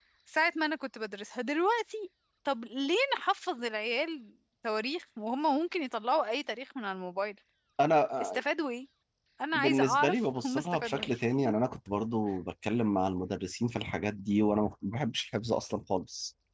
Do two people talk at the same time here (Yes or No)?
Yes